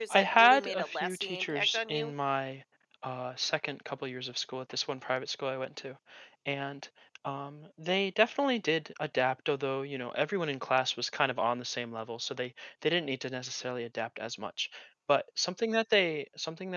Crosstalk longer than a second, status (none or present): present